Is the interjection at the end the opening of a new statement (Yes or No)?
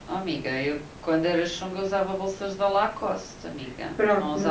Yes